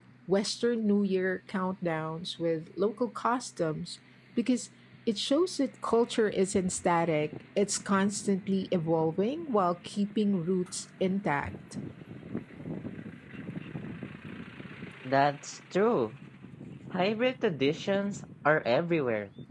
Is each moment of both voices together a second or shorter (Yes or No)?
Yes